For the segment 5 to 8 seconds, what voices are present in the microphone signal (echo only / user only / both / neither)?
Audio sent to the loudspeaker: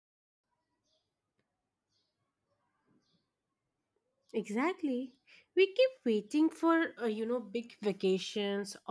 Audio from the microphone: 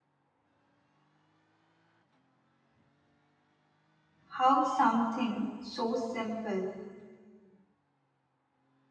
user only